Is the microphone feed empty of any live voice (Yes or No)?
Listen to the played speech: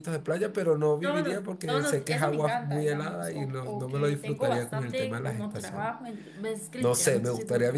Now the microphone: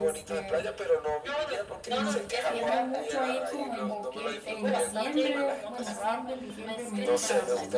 No